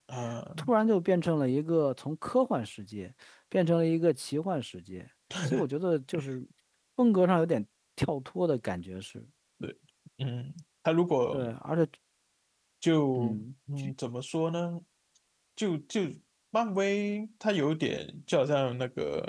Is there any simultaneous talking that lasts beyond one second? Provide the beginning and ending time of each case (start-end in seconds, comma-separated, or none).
none